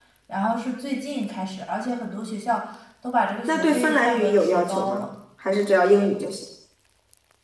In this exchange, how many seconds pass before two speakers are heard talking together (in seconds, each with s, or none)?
3.5 s